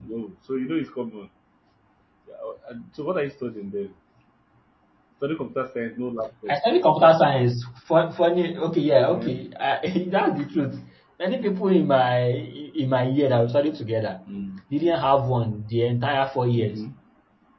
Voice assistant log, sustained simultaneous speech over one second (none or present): none